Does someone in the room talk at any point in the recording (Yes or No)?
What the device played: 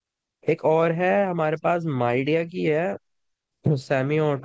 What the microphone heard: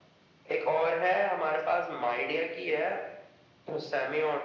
No